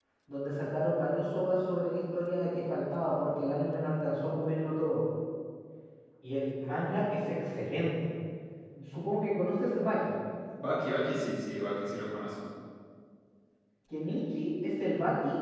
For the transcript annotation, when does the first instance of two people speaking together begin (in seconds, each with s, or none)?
none